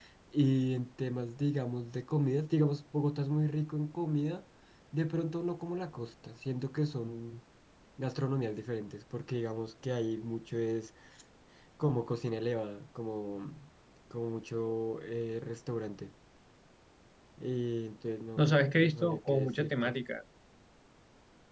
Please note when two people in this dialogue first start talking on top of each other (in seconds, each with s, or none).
18.4 s